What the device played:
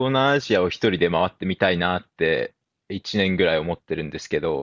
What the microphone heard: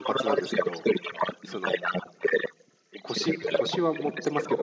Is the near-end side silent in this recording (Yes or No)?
No